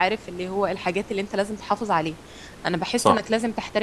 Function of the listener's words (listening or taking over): listening